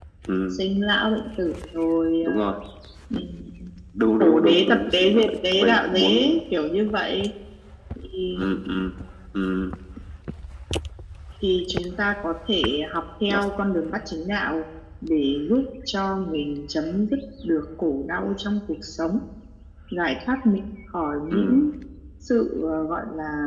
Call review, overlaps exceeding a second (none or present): present